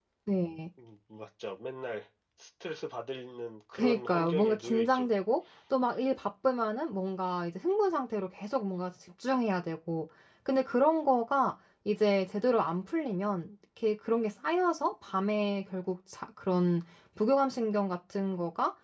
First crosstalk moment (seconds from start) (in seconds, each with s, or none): 3.7 s